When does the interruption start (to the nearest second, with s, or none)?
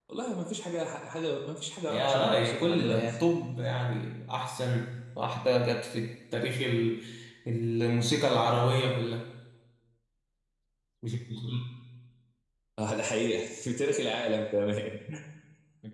2 s